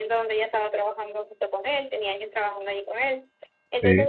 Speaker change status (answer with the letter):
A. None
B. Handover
A